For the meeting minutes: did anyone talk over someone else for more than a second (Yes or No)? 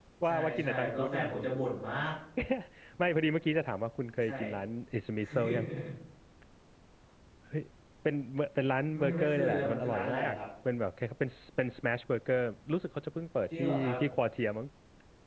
Yes